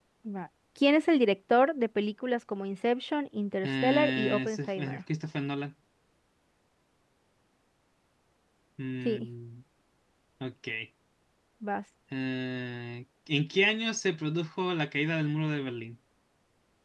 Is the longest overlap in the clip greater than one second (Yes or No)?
Yes